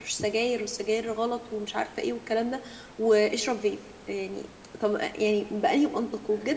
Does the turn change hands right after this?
No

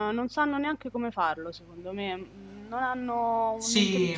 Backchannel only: No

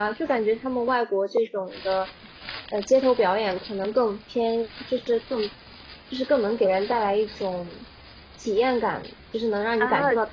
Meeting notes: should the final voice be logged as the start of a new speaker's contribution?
Yes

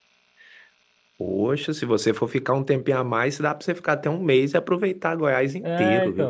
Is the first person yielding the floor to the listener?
Yes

